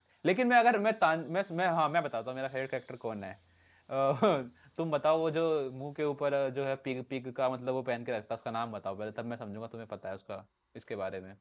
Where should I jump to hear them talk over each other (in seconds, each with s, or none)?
none